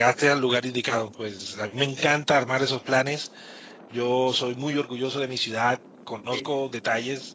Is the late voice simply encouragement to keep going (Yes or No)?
Yes